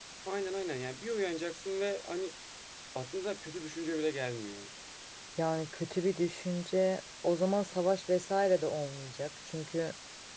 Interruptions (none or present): none